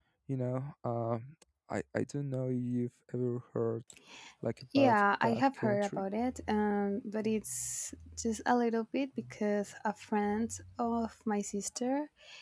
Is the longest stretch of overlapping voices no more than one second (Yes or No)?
No